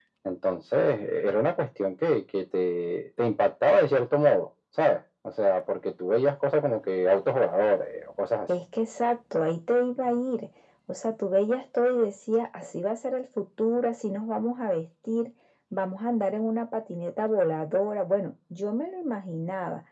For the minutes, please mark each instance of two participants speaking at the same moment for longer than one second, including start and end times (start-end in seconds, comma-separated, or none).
none